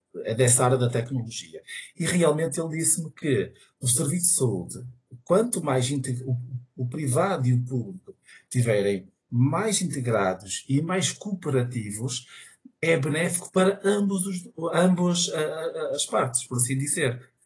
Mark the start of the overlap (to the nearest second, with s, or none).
none